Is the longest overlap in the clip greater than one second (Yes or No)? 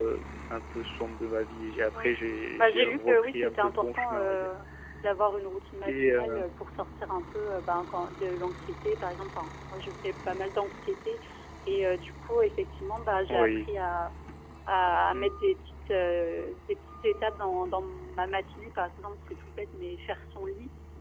Yes